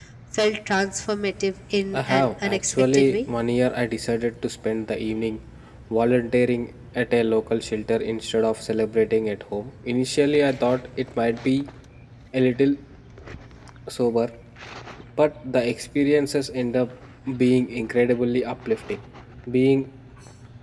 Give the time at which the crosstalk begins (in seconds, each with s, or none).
1.9 s